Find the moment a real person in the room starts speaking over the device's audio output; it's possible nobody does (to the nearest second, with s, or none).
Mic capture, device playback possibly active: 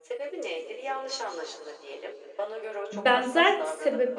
3 s